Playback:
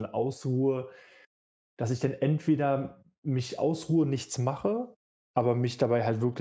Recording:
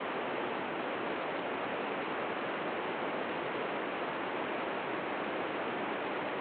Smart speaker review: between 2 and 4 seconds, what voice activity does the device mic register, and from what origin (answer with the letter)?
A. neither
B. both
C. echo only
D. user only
A